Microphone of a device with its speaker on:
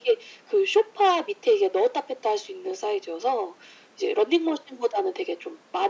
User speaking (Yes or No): No